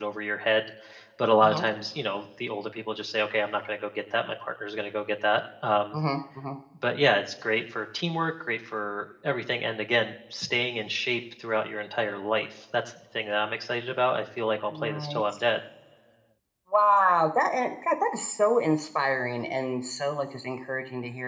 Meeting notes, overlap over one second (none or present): none